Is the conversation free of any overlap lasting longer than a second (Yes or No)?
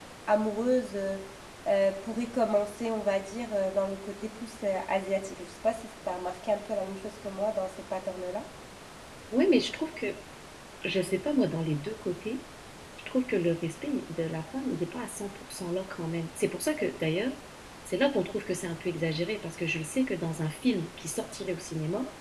Yes